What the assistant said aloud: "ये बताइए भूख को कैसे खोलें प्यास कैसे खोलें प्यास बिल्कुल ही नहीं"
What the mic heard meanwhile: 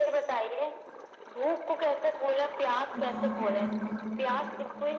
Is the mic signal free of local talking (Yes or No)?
No